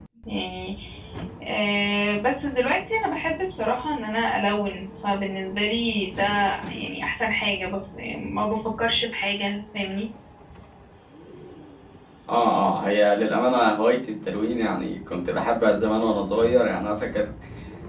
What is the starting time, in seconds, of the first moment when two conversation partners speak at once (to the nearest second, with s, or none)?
none